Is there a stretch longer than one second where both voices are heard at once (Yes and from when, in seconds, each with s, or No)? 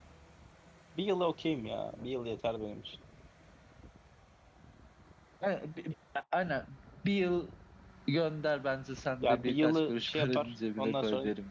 Yes, from 9.2 s